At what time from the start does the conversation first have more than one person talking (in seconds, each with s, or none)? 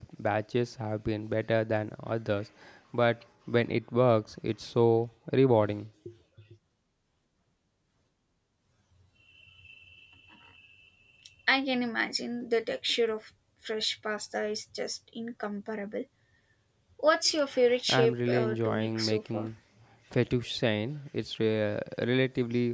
17.9 s